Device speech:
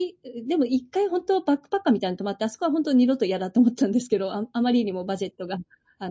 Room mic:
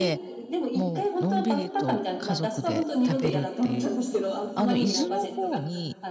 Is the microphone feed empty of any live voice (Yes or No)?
No